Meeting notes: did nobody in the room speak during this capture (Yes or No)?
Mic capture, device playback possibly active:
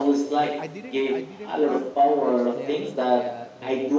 No